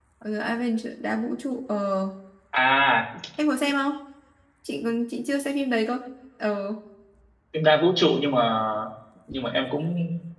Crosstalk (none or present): none